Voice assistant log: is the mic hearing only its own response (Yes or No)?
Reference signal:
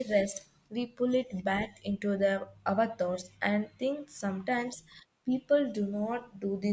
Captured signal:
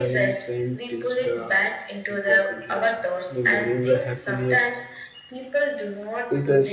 No